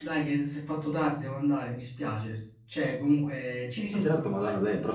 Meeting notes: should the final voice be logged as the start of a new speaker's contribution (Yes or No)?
Yes